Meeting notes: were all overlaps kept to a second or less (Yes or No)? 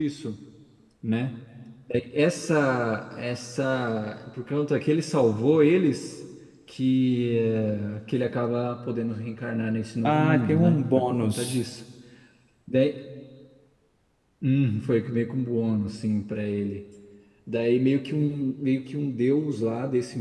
No